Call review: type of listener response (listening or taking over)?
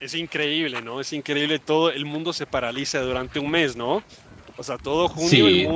taking over